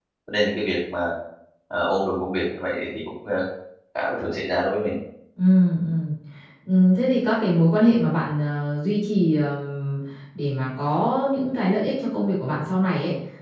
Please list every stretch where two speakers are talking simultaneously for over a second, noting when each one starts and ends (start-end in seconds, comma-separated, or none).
none